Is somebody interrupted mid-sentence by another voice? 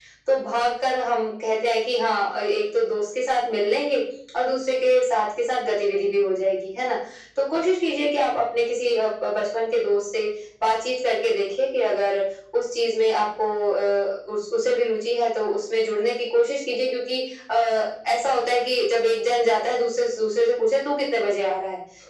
No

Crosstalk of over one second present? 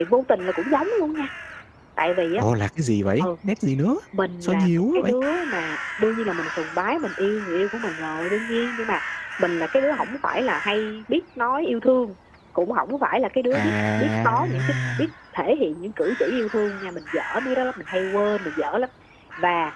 Yes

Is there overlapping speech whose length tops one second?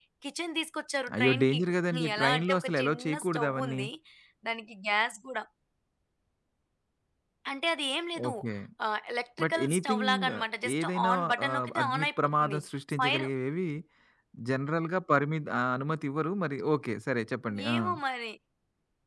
Yes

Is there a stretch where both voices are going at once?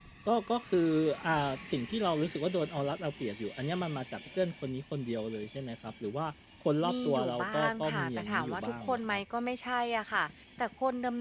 Yes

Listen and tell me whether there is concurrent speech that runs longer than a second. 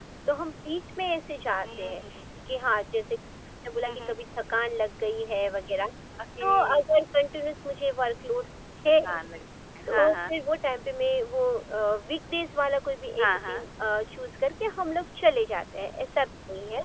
No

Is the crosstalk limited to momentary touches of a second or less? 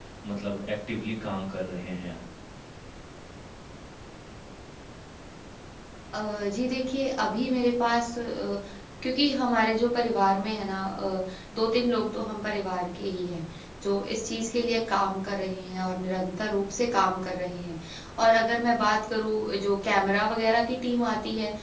Yes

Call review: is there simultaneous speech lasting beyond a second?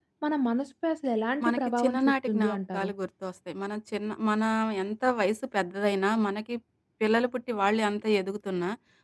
Yes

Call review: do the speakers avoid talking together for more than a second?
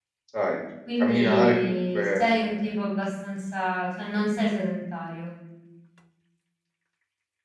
No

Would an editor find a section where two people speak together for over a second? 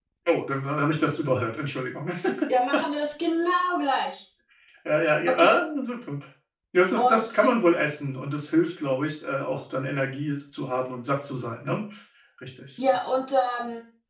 No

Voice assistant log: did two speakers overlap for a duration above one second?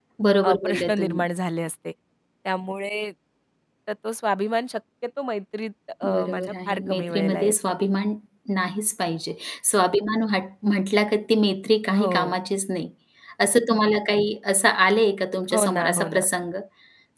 Yes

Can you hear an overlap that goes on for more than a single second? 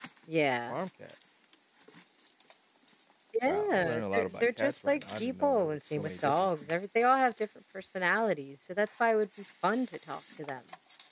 Yes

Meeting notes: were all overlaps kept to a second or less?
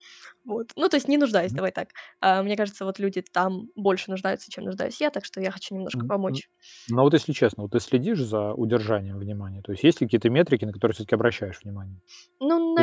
Yes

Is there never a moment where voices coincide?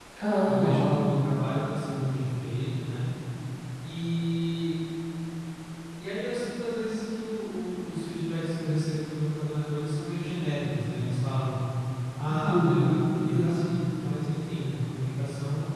No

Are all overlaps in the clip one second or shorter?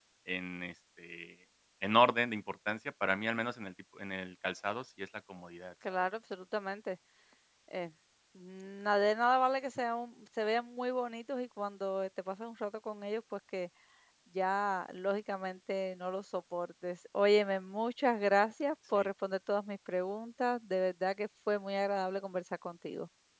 Yes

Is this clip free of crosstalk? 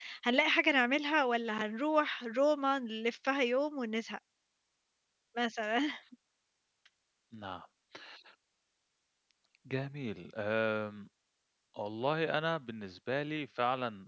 Yes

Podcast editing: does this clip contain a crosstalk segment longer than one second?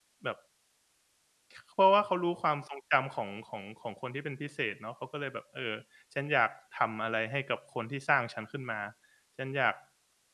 No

